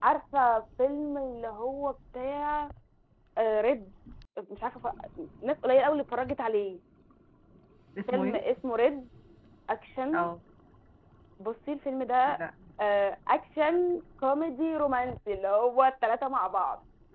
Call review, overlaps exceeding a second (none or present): none